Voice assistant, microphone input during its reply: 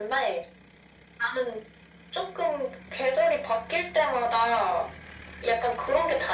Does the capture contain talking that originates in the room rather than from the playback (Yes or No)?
No